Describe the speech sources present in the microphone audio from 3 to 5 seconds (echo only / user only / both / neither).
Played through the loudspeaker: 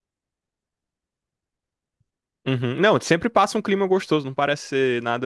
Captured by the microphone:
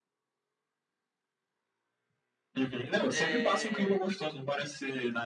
both